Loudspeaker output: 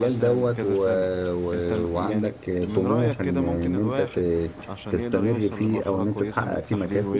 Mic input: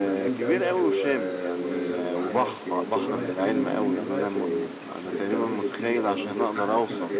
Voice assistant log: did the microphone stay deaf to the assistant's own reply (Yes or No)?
No